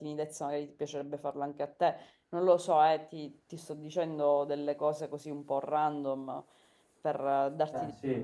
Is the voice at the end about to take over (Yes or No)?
No